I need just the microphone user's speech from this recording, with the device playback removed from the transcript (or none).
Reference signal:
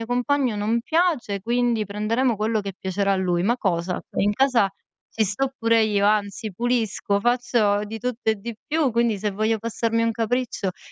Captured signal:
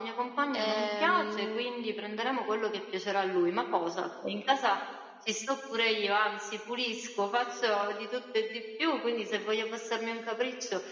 Ehm,